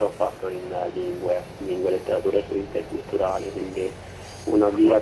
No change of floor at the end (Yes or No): Yes